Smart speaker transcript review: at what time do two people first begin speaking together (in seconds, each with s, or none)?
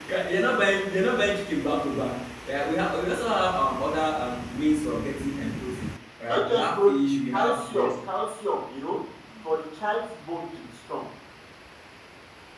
6.3 s